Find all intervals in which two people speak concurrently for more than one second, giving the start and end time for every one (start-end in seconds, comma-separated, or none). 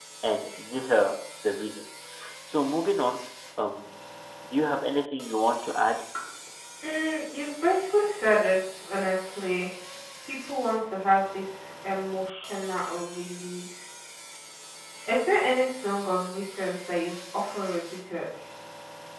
none